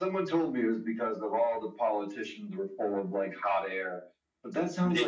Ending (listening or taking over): listening